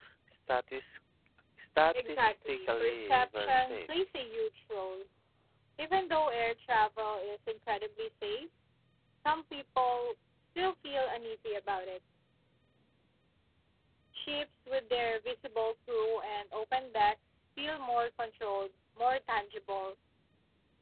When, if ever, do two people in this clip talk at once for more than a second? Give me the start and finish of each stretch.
2.1-3.8

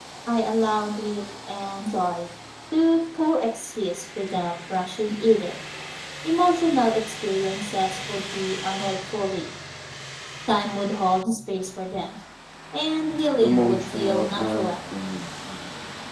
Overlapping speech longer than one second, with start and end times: 13.4-14.8

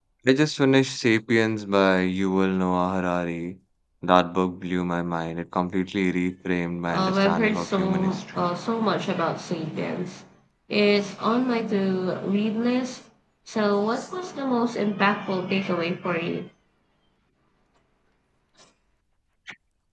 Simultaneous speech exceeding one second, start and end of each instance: 6.9-8.5

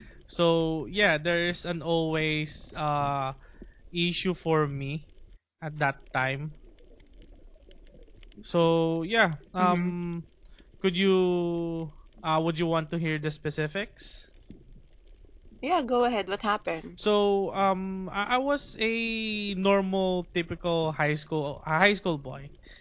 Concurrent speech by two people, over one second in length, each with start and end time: none

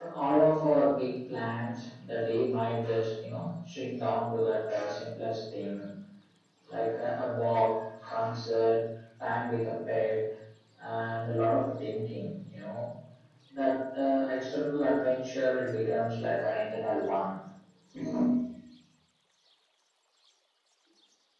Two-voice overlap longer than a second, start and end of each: none

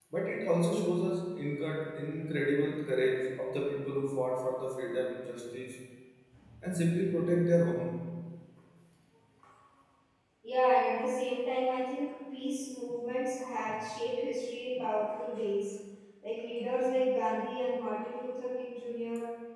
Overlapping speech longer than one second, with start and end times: none

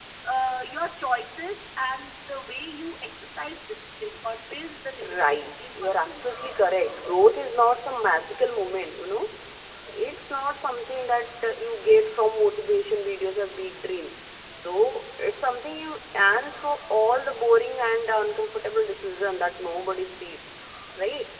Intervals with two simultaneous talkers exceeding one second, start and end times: 5.0-6.2

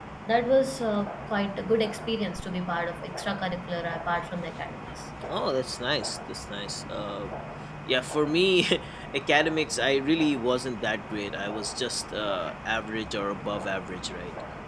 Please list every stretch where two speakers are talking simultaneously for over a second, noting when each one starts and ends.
none

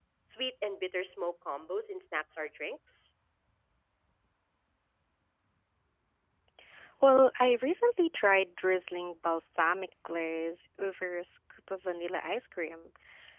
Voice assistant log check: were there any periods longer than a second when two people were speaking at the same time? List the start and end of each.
none

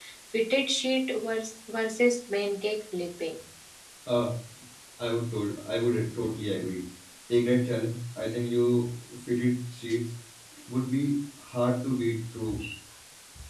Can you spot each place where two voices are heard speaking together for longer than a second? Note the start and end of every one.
none

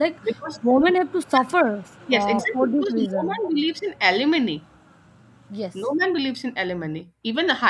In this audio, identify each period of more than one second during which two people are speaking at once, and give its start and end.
2.1-3.4

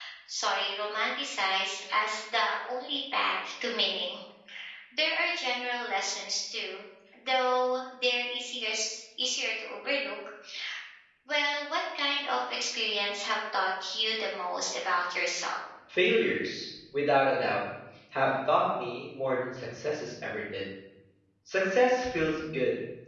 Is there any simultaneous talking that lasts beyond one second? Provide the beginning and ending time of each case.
none

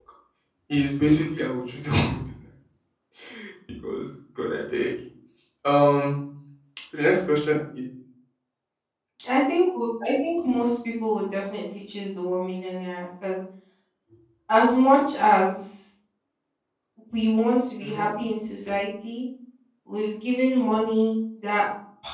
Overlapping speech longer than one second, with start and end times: none

